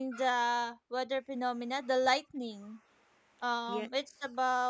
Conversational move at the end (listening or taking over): listening